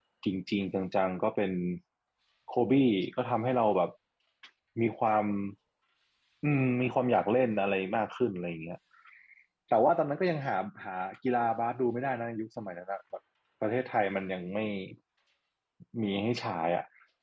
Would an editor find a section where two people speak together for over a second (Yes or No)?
No